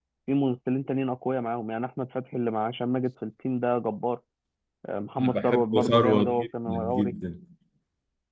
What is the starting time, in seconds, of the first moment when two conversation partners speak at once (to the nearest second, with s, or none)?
5 s